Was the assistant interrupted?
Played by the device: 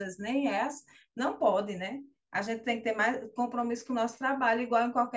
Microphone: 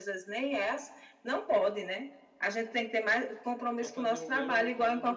Yes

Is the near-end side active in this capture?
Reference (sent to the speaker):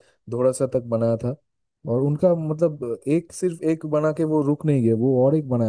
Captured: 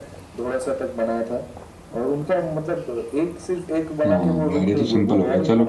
Yes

